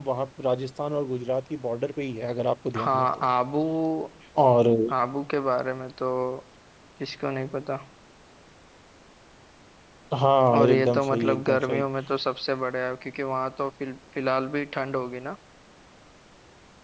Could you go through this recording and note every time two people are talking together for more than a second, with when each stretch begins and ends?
10.6-11.8

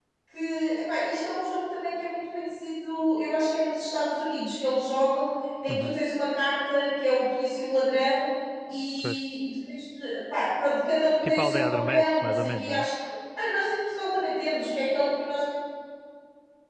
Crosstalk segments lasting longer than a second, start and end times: 11.2-12.9

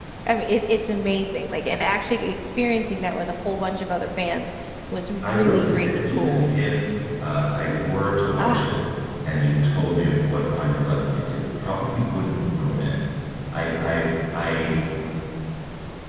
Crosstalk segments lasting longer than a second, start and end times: 5.2-6.5

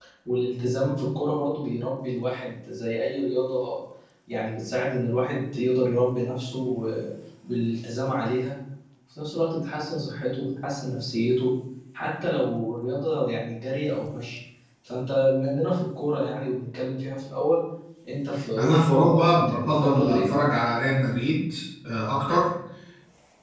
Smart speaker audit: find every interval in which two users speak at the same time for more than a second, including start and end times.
18.6-20.3

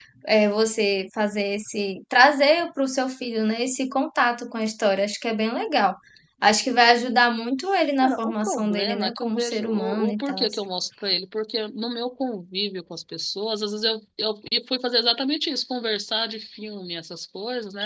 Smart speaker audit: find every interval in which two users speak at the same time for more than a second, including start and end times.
8.0-10.5

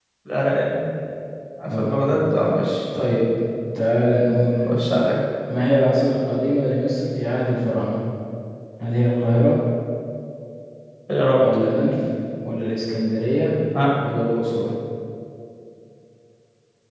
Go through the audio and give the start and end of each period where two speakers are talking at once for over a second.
none

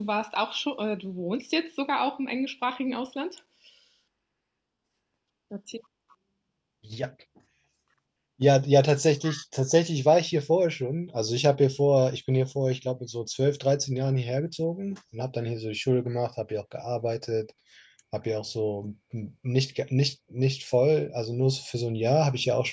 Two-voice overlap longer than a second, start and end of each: none

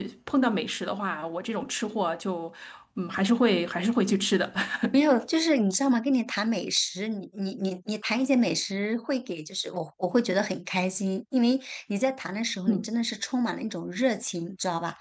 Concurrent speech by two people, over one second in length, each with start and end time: none

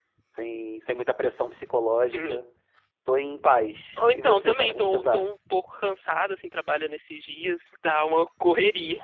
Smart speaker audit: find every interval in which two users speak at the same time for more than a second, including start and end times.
4.0-5.2

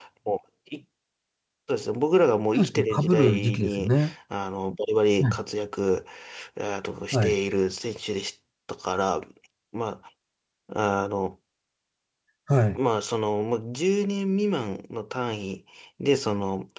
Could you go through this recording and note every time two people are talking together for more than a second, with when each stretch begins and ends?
2.5-3.9

